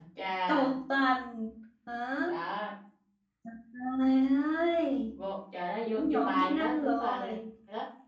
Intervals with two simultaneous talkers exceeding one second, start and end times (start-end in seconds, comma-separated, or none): 5.9-7.3